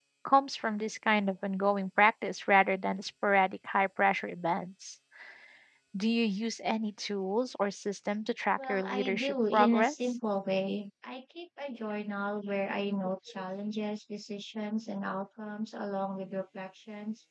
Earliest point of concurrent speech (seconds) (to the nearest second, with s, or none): 9 s